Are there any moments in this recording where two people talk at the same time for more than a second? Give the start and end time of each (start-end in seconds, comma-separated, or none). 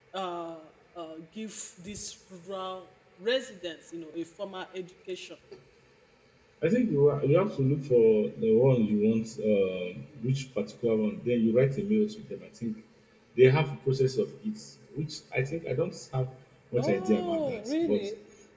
16.8-18.0